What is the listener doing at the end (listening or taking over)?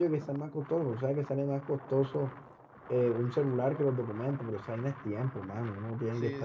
listening